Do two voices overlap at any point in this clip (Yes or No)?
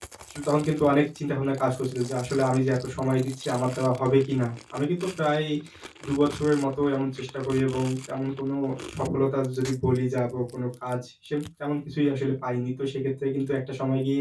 No